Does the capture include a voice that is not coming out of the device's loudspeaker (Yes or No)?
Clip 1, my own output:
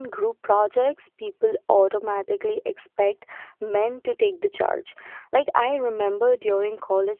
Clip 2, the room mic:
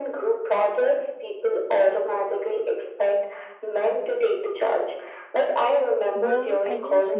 Yes